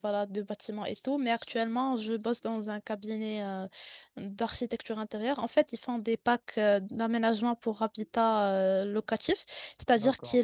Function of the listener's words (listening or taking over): listening